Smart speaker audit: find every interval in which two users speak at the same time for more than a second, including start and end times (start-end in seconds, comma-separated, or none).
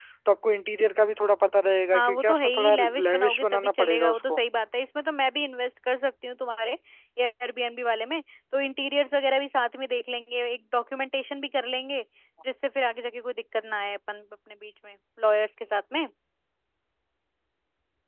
1.9-4.4